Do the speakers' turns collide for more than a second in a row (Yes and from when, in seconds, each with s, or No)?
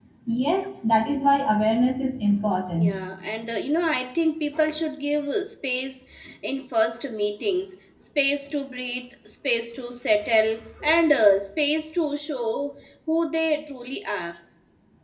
No